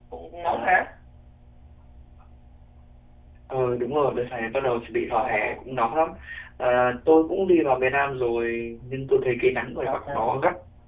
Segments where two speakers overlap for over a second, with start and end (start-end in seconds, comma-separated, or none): none